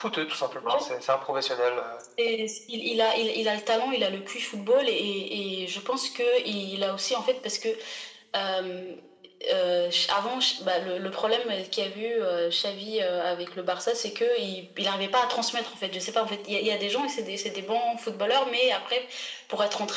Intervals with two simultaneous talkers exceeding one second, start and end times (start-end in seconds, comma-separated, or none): none